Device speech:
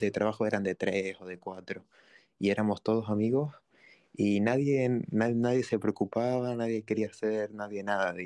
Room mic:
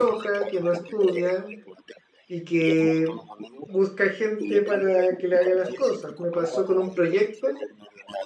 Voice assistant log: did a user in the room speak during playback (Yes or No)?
Yes